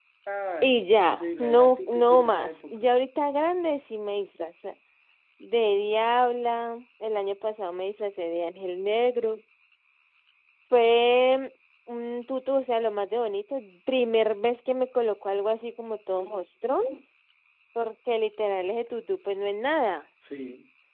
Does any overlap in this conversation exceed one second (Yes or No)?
Yes